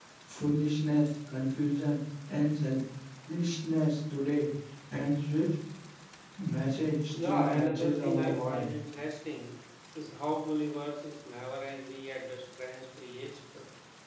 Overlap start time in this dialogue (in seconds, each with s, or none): 7.2 s